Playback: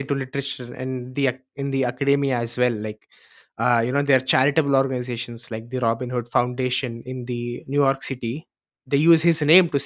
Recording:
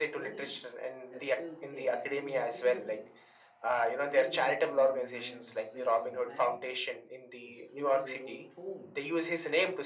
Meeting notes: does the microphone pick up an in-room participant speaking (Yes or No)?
Yes